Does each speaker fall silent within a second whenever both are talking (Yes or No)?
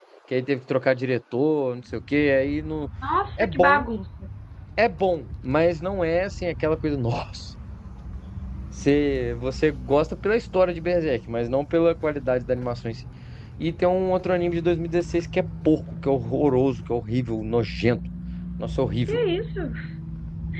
Yes